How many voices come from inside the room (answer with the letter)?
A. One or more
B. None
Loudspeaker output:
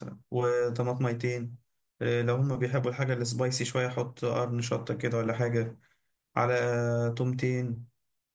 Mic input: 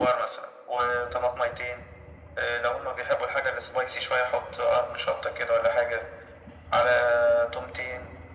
B